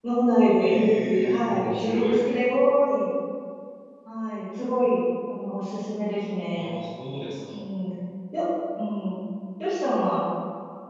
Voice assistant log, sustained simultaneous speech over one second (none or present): present